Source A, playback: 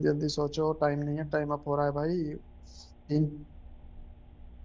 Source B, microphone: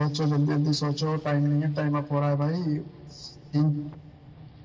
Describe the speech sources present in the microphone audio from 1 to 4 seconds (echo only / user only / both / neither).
echo only